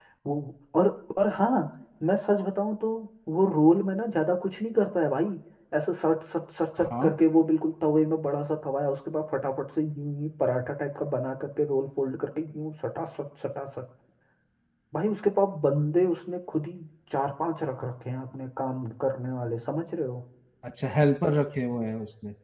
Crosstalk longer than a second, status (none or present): none